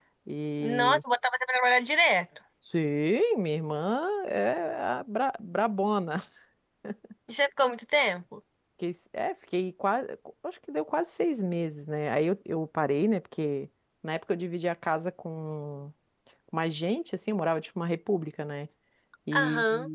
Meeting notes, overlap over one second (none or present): none